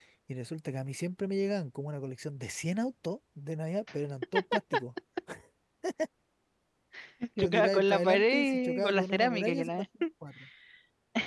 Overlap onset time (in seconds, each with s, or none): 7.4 s